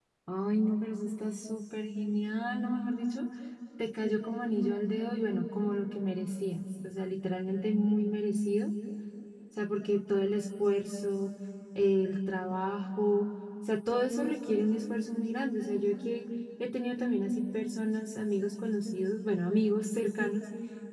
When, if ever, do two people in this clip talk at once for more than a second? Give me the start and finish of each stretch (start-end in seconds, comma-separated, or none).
none